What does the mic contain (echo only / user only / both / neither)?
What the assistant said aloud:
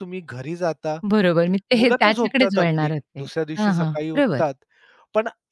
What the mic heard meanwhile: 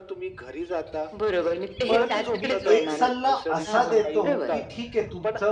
both